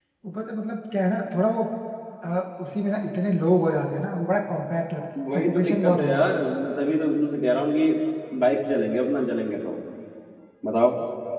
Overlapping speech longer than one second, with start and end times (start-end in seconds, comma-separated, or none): 5.3-6.6